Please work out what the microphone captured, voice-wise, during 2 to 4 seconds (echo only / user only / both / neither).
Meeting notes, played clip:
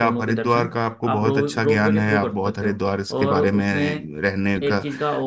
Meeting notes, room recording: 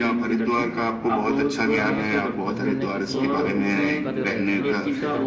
both